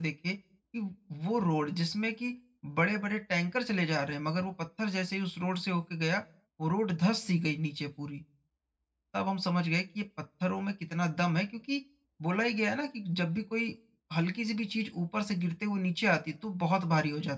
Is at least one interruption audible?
No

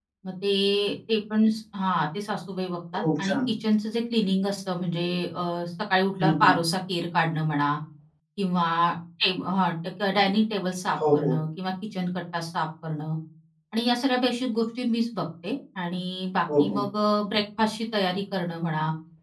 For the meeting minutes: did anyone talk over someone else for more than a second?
No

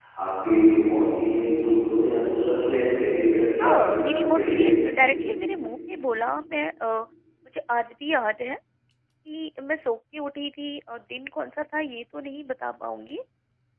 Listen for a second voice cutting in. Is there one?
Yes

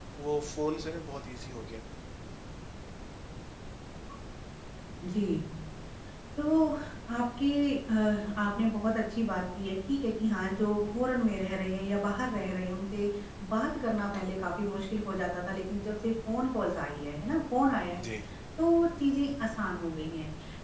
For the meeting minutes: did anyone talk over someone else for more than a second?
No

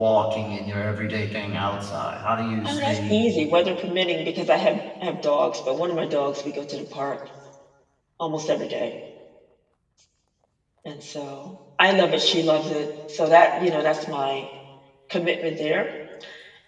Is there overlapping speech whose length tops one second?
No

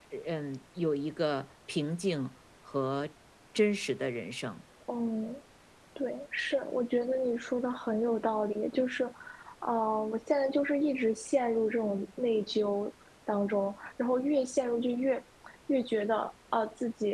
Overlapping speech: No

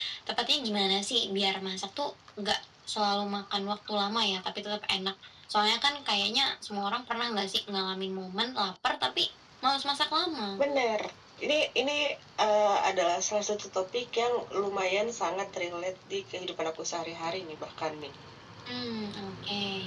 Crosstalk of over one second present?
No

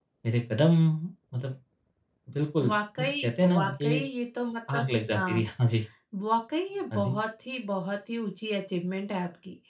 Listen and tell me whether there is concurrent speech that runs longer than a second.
Yes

